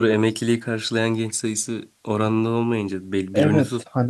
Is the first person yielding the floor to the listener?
Yes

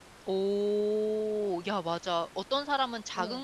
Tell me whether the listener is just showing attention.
Yes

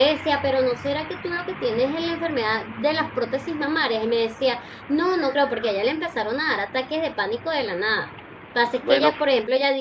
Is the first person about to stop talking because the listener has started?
No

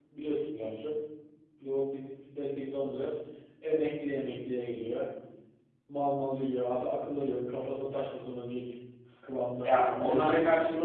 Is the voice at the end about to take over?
Yes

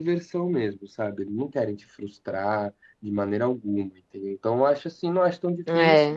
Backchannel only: Yes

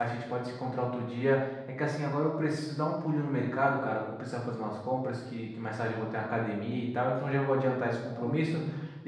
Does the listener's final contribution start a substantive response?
No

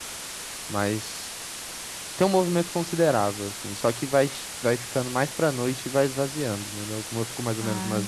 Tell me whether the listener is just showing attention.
Yes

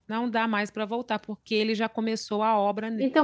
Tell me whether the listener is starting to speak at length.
Yes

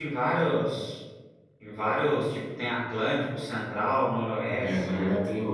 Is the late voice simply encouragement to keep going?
No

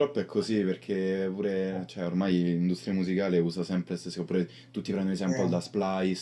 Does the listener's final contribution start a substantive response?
No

